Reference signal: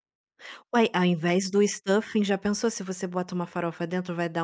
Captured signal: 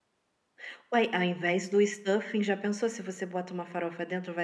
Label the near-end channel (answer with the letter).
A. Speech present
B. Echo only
B